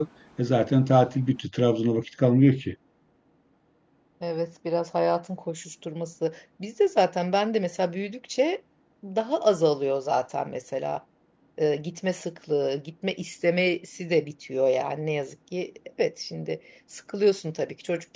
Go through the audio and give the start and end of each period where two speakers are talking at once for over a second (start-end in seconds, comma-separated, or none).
none